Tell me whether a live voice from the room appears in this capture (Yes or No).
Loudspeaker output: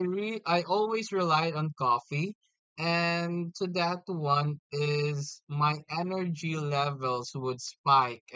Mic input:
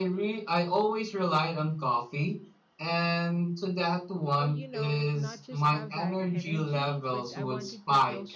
Yes